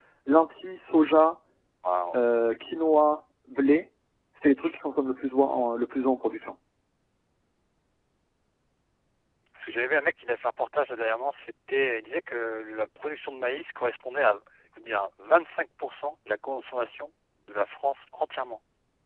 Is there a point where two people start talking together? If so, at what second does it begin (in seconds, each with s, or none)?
none